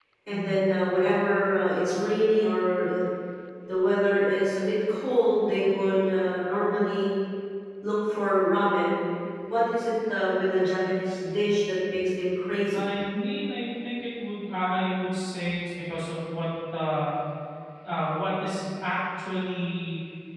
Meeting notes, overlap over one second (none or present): none